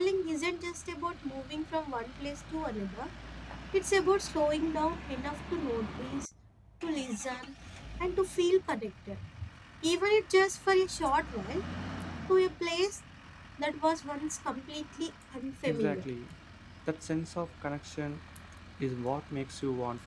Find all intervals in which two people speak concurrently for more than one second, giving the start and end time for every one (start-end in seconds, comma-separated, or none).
none